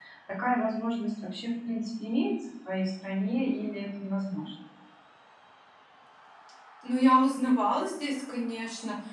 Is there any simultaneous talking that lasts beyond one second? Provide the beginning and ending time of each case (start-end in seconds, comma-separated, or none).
none